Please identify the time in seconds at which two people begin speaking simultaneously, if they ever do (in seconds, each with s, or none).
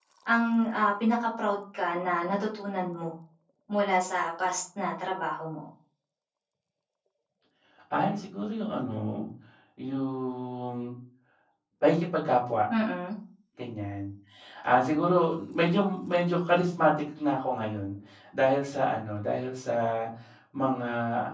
none